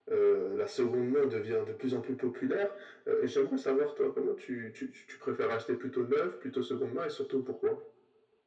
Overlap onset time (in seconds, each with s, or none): none